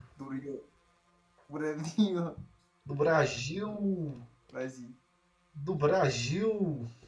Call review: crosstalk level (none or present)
none